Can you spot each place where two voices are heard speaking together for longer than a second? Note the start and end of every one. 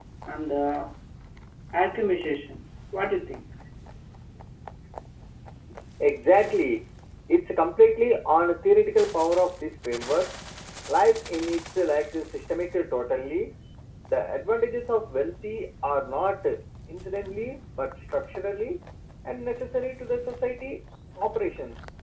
none

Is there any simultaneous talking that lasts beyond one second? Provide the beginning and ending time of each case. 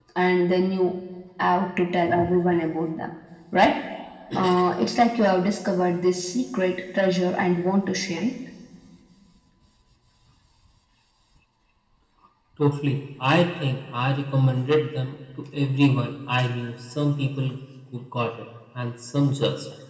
none

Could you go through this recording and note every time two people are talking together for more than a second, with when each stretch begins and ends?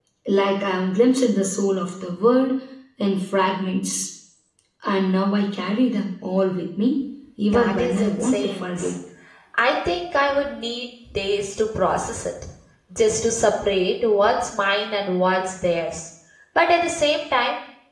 7.5-8.8

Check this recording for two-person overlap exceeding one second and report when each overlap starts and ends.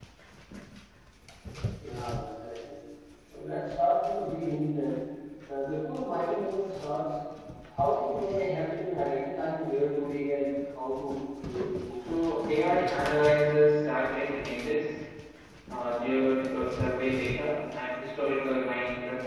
none

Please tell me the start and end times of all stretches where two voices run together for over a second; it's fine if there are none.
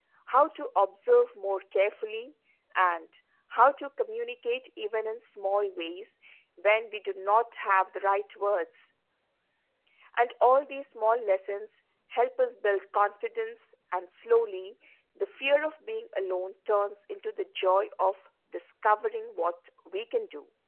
none

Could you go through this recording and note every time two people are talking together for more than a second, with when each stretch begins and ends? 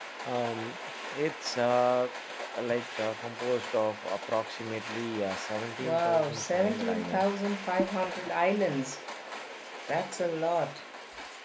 5.8-7.2

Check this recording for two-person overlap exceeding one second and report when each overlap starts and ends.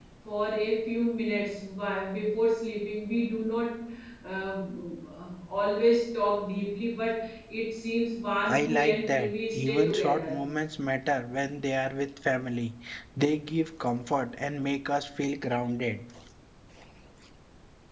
8.5-10.3

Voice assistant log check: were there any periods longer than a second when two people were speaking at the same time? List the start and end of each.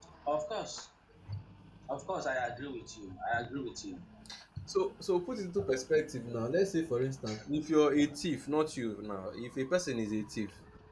none

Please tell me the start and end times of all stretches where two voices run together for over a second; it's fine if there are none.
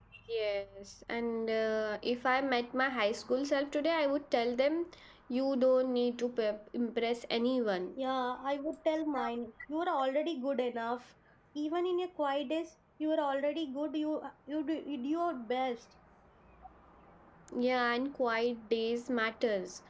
none

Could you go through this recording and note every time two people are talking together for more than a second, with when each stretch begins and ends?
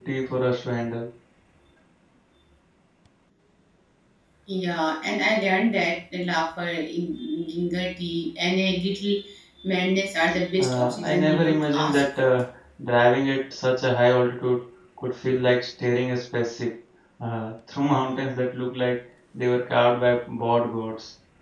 10.6-12.4

